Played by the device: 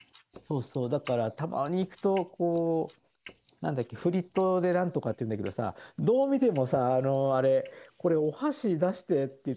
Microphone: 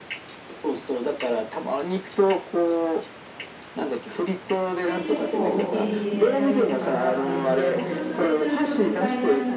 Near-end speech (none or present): present